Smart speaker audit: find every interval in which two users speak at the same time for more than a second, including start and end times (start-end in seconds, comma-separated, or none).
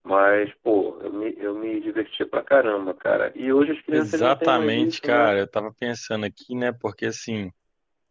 3.9-5.3